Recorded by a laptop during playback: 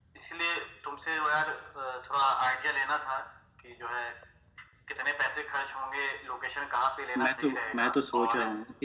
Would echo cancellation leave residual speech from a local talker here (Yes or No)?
Yes